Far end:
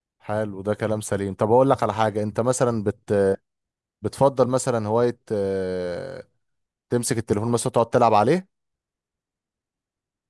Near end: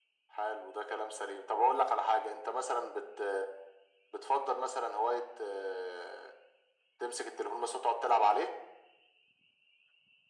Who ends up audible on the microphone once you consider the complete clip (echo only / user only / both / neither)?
echo only